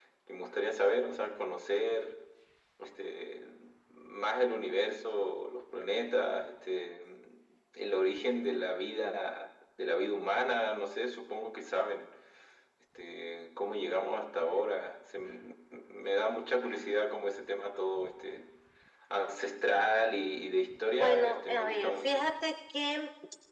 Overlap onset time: 20.9 s

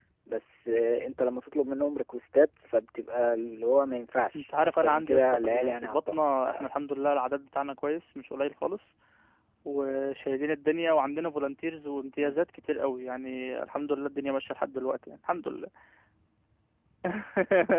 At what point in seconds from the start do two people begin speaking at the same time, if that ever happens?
4.3 s

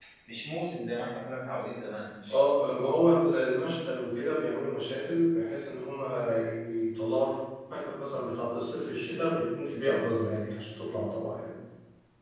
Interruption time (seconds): none

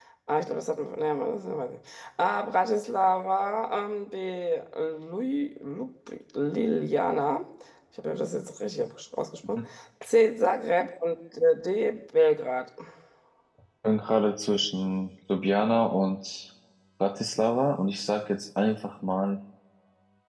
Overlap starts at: none

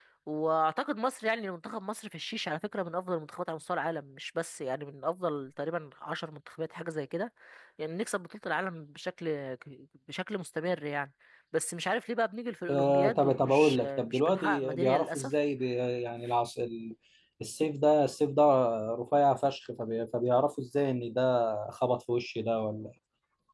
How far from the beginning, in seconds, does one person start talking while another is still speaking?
12.7 s

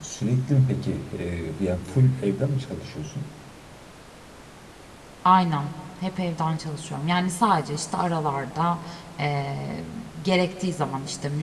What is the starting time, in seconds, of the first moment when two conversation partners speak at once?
none

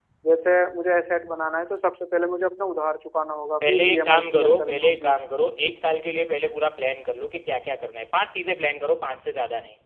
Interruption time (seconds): 3.6 s

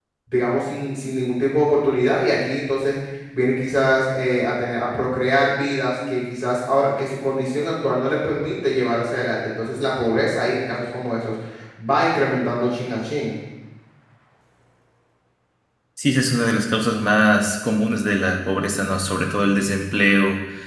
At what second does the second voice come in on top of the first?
none

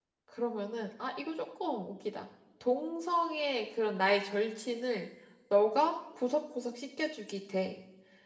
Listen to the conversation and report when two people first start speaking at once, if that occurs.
none

